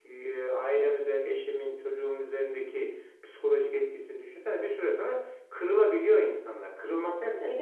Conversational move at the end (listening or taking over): listening